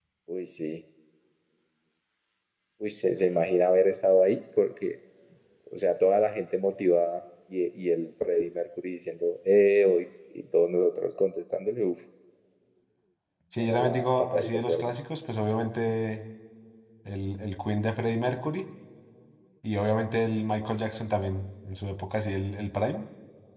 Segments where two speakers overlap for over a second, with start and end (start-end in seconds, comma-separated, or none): 13.6-14.9